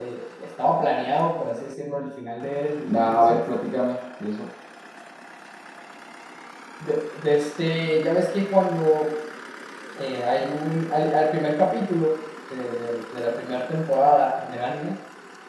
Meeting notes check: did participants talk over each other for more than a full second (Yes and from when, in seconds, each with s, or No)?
No